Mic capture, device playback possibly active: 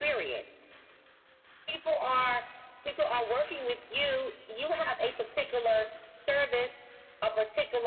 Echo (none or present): present